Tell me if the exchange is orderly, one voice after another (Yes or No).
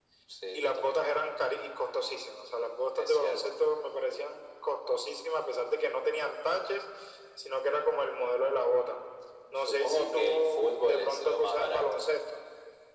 No